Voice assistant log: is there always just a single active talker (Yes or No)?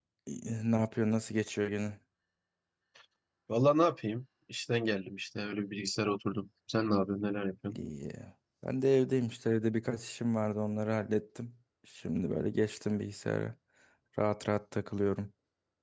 Yes